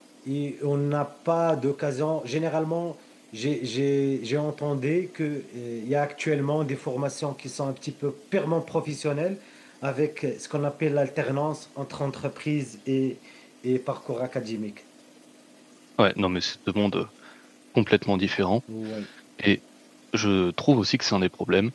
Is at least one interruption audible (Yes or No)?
No